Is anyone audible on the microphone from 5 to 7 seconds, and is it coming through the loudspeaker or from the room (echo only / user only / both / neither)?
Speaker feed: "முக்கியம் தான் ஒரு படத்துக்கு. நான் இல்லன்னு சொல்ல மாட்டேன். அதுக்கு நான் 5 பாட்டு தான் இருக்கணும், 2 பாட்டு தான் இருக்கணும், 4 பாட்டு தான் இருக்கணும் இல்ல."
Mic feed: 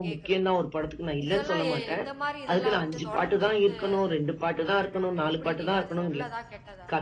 both